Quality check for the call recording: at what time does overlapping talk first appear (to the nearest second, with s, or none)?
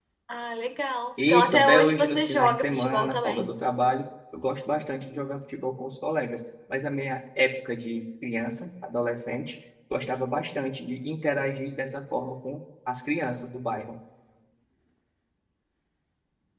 1 s